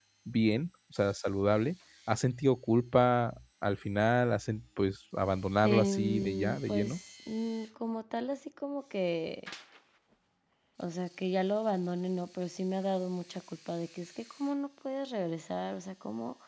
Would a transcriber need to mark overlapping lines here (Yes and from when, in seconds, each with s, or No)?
Yes, from 5.6 s